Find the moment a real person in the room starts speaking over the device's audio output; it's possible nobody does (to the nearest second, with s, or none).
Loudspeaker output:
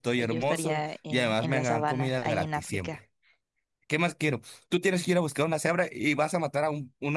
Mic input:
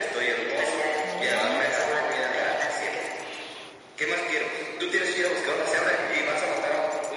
1 s